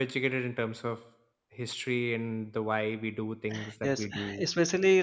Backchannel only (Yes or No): No